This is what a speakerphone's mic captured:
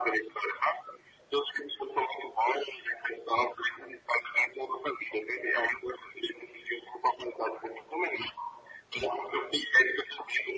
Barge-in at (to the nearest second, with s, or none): none